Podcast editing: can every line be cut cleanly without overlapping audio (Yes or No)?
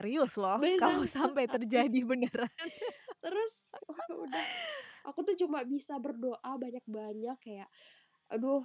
No